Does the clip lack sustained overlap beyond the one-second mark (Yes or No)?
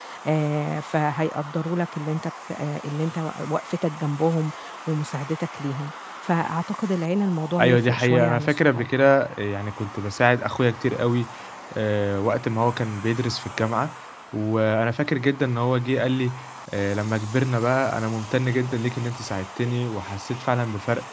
No